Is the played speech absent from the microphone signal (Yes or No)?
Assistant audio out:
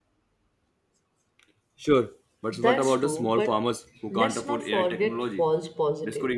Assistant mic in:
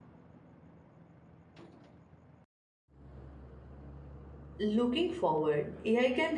Yes